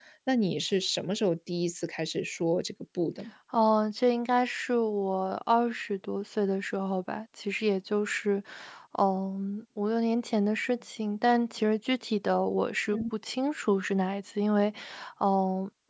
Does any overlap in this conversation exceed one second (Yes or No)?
No